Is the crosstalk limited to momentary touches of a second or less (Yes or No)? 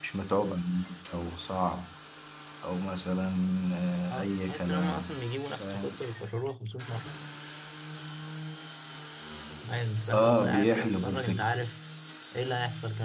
No